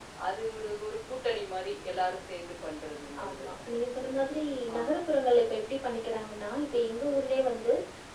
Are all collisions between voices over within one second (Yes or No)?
Yes